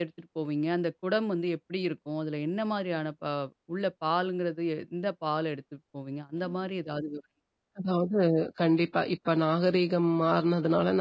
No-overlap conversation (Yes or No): Yes